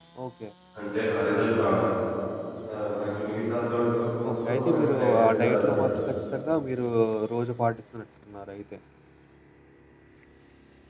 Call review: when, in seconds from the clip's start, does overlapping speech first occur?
4 s

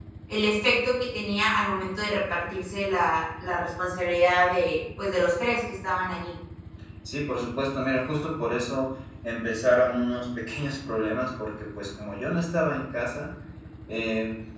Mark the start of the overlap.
none

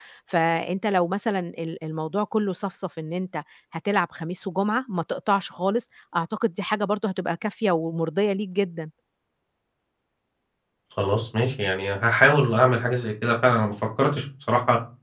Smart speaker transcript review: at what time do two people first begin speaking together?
none

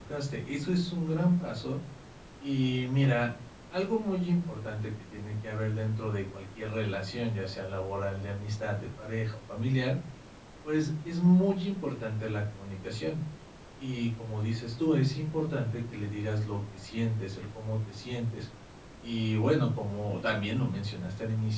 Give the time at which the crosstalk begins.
none

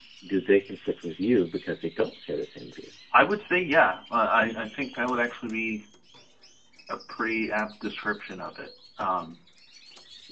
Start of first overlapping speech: none

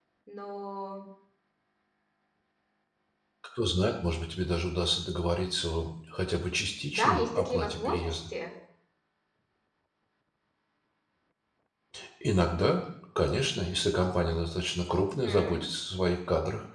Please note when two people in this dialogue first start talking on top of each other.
7 s

